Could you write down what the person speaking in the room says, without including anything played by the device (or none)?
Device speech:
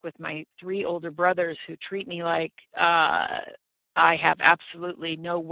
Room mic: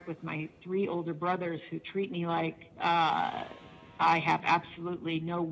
none